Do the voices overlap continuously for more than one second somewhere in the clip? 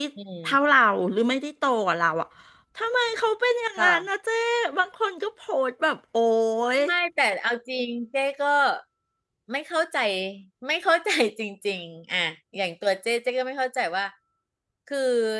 No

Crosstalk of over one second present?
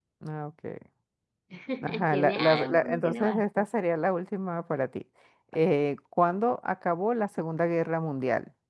Yes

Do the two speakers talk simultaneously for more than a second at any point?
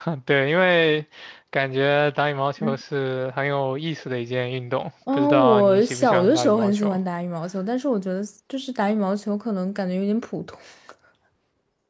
Yes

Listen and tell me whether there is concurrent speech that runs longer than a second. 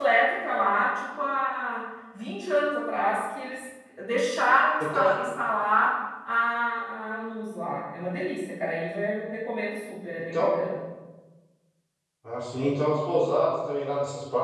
No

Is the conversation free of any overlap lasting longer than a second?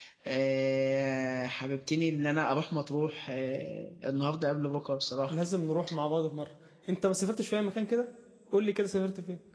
Yes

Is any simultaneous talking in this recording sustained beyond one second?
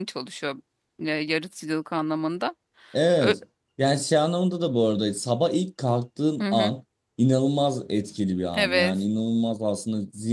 No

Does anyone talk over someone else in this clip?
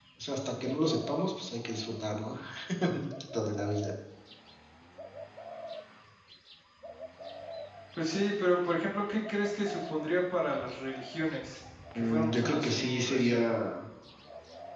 Yes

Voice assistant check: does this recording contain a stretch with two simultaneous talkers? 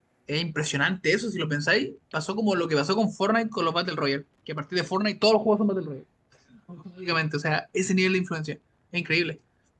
No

